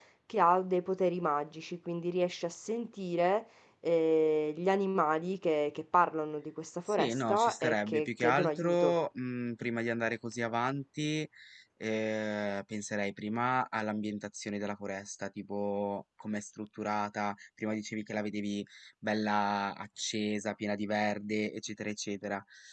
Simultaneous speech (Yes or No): Yes